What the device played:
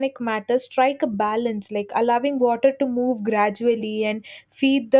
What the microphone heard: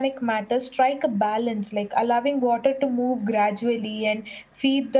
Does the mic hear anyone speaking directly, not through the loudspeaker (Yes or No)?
No